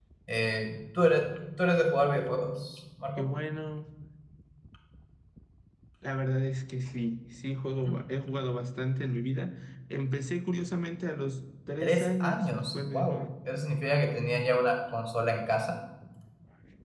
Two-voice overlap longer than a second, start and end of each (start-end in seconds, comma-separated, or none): 11.8-13.2